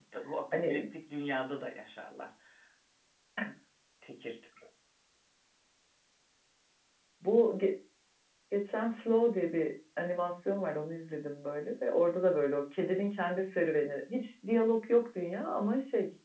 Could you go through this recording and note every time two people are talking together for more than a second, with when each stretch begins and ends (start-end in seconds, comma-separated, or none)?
none